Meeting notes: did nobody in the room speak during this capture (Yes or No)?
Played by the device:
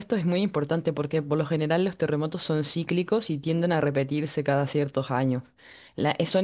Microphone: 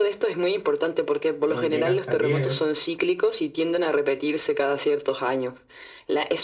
No